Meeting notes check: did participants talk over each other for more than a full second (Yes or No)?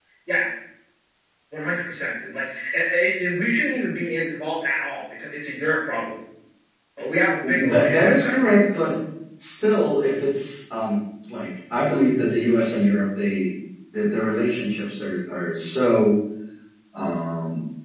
Yes